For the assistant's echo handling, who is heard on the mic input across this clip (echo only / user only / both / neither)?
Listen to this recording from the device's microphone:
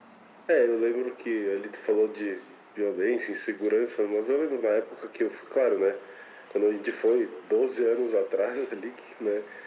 echo only